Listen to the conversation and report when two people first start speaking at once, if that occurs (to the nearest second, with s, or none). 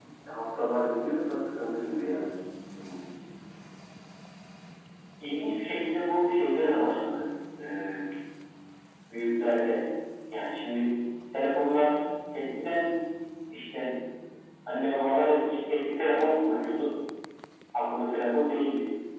none